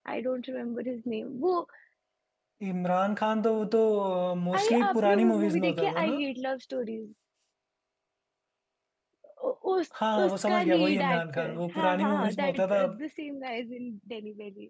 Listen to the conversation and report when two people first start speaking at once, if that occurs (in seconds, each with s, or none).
4.5 s